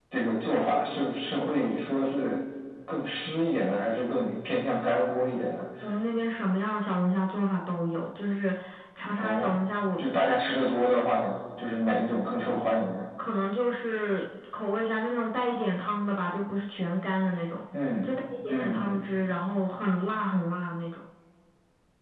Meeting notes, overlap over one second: none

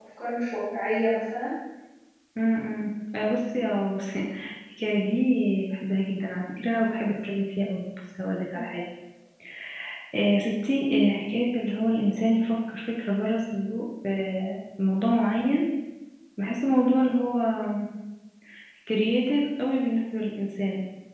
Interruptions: none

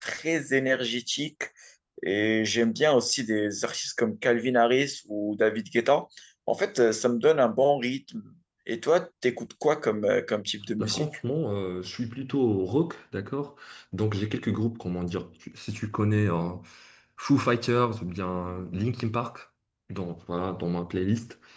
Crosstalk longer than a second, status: none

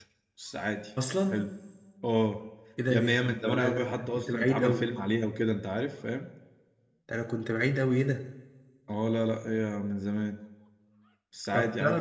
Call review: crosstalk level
present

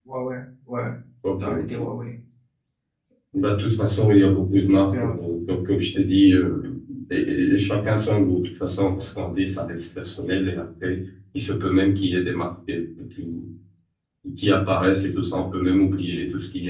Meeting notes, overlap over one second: none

